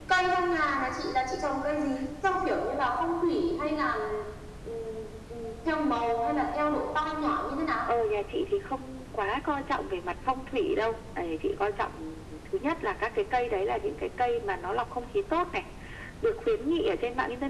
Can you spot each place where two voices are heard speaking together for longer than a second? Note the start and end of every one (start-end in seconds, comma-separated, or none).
none